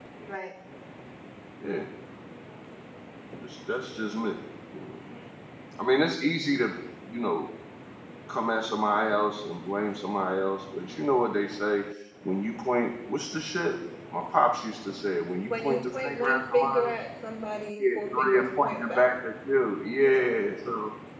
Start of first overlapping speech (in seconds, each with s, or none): 15.5 s